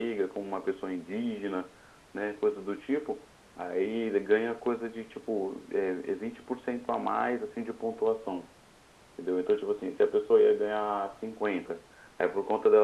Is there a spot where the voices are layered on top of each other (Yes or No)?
No